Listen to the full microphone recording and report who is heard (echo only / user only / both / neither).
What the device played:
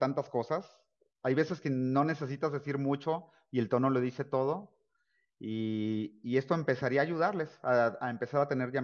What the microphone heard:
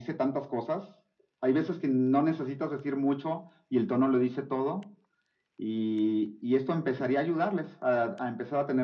echo only